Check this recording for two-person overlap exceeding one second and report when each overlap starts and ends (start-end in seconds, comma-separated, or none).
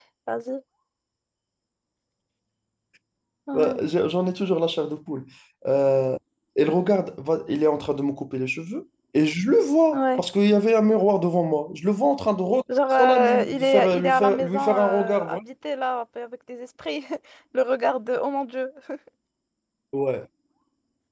13.0-15.4